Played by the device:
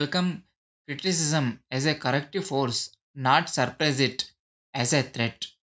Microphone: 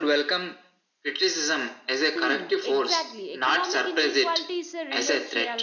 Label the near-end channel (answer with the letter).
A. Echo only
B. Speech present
B